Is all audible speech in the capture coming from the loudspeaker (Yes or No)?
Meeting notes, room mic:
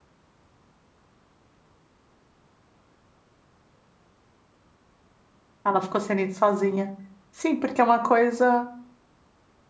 No